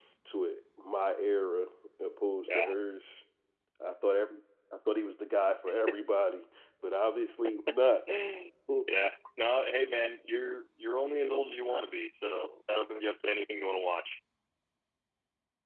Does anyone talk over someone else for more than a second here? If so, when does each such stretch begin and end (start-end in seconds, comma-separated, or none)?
none